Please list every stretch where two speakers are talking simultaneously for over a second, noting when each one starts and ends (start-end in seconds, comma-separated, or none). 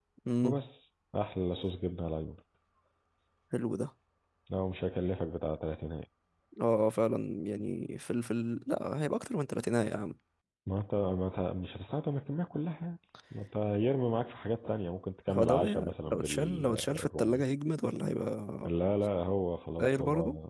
15.3-17.4